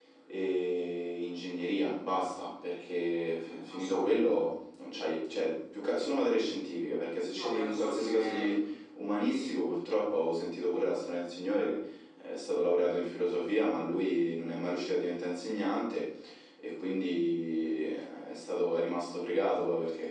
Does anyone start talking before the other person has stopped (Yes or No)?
Yes